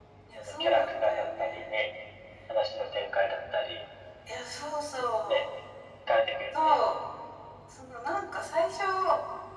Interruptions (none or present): present